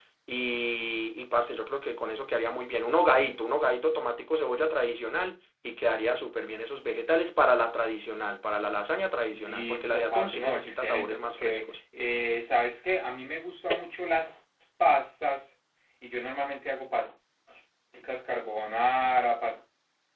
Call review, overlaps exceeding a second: present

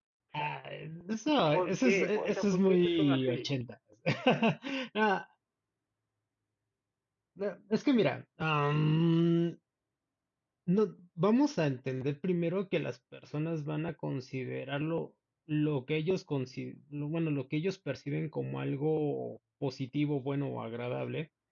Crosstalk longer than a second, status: present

